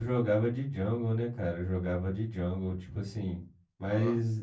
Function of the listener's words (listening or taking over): listening